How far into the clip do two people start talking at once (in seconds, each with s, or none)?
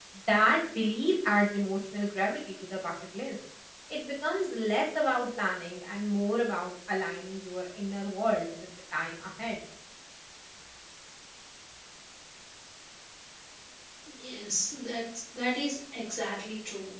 none